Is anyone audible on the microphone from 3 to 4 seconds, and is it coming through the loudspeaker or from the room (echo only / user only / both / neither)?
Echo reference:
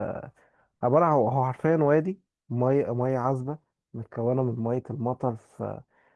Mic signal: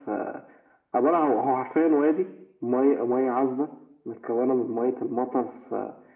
echo only